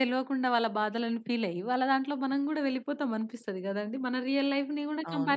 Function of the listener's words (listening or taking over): taking over